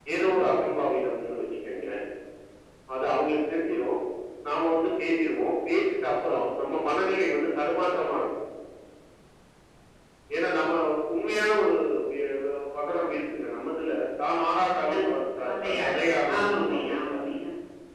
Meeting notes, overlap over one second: present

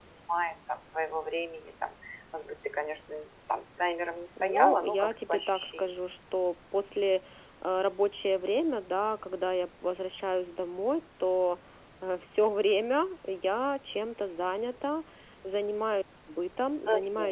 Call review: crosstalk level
present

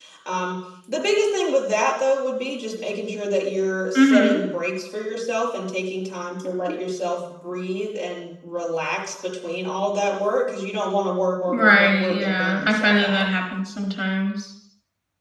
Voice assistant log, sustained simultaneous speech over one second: present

